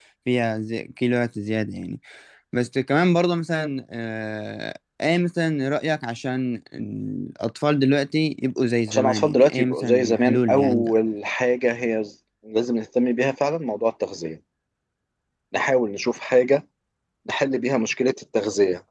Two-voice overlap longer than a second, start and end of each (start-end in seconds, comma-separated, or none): 8.9-10.9